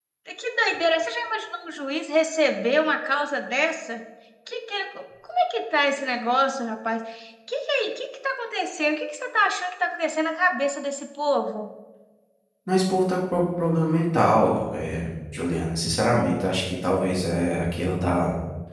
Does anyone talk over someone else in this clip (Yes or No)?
No